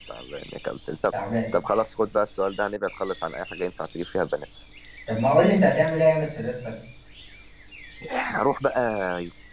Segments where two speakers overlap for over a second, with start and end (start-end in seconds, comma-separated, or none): none